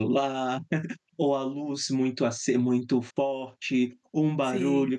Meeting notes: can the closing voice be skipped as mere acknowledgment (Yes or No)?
Yes